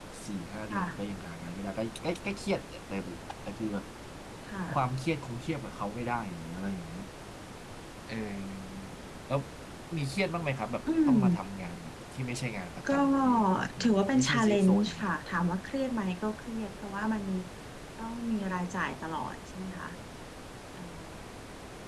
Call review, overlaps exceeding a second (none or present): present